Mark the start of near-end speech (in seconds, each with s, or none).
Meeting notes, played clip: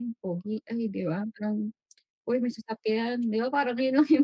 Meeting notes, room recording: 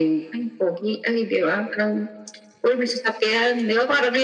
none